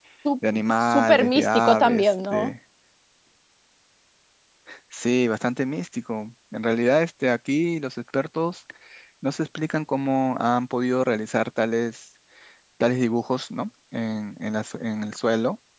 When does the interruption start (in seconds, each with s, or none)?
0.5 s